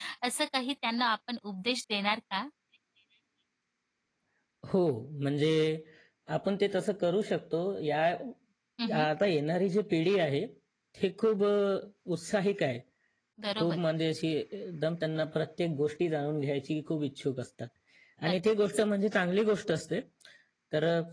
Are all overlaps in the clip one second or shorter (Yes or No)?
Yes